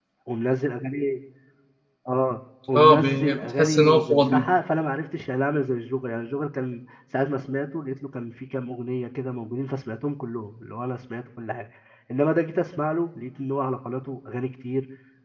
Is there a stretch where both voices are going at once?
Yes, from 2.8 s

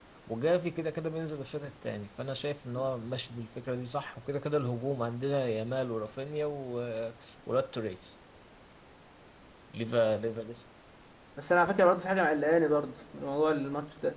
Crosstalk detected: No

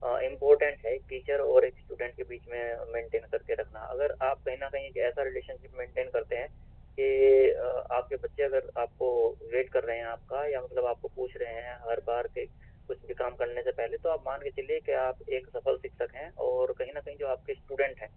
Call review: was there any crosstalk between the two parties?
No

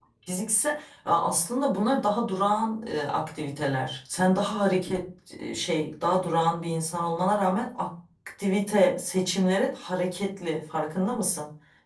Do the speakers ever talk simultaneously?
No

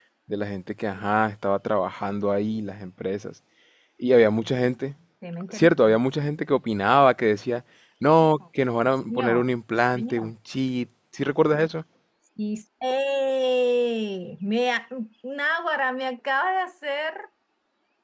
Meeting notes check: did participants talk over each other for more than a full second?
No

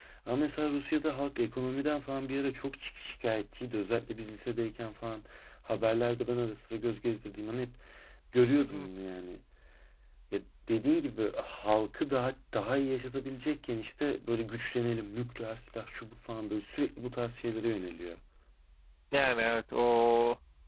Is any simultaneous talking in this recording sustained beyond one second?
No

